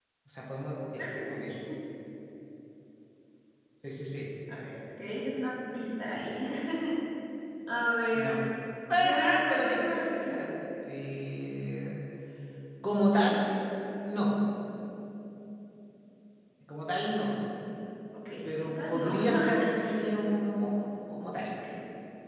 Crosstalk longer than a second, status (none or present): present